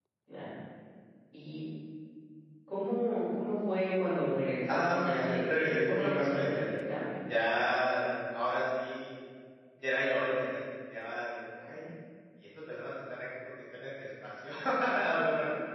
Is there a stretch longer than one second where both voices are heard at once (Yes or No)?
Yes